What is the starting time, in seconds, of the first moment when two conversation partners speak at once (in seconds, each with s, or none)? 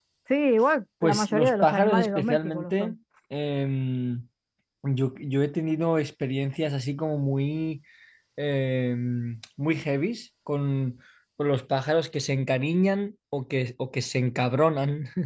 1.0 s